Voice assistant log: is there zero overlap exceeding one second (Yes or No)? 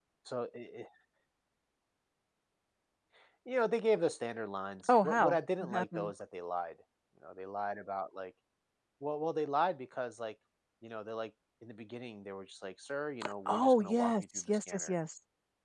No